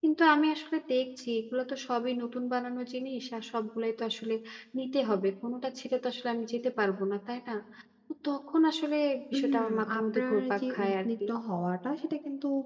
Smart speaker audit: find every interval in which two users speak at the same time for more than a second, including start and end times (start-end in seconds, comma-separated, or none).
9.3-11.1